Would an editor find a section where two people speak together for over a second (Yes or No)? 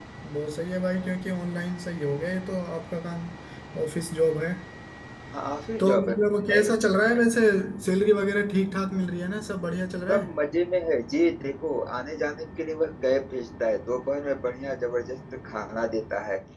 No